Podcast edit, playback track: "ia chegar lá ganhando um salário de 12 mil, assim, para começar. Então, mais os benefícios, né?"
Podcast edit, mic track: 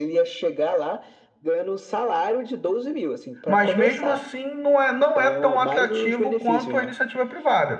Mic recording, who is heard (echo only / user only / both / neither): both